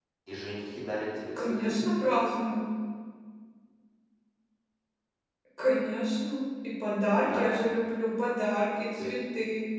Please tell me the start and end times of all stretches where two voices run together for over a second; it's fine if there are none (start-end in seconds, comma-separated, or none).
none